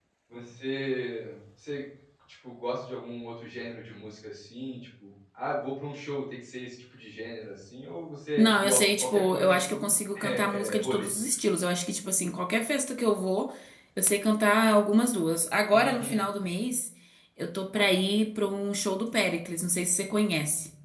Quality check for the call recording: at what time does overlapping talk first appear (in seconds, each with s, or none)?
8.4 s